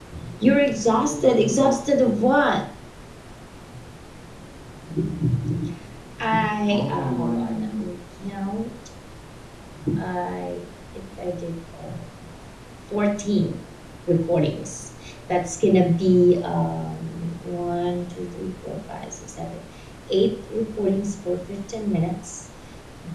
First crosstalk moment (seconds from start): 0.7 s

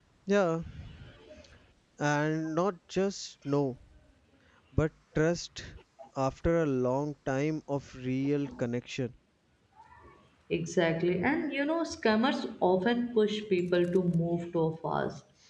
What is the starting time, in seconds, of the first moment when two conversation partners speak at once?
none

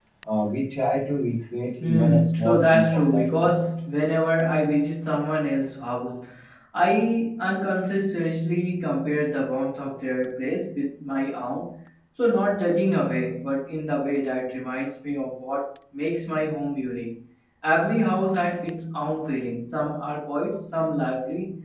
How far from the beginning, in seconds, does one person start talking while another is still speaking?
1.8 s

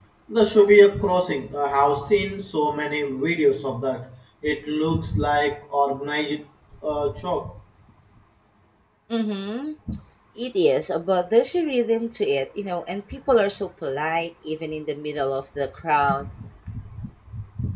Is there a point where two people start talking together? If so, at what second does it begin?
none

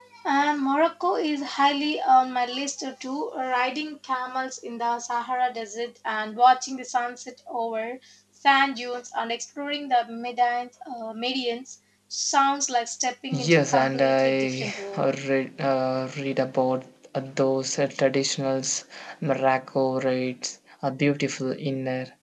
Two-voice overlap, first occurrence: 13.3 s

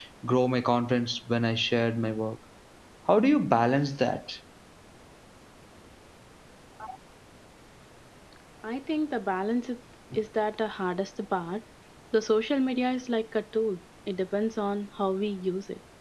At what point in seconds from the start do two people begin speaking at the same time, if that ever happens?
none

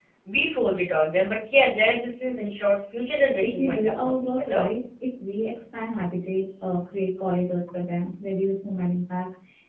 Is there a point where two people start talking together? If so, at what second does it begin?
3.4 s

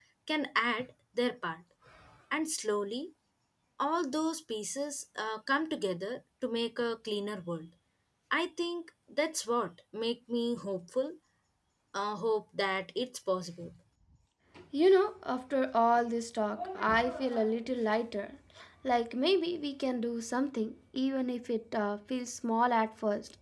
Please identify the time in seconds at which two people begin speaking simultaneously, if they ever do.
none

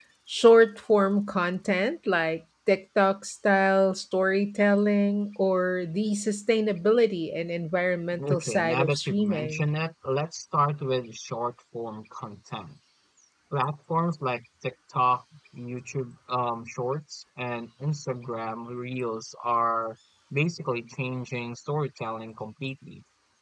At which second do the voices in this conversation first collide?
8.1 s

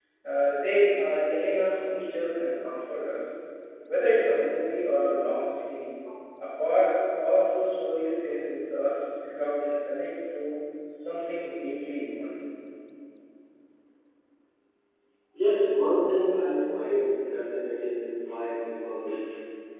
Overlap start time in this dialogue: none

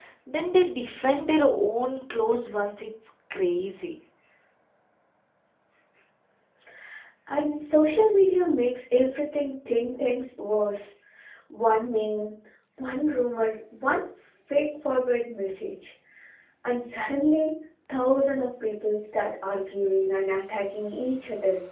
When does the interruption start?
none

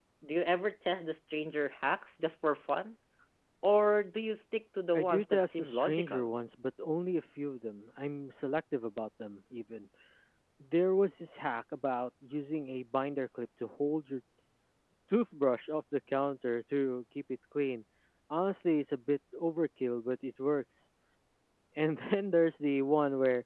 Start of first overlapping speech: 4.9 s

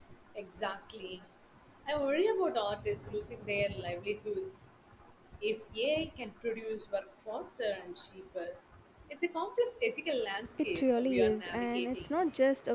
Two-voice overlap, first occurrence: 10.8 s

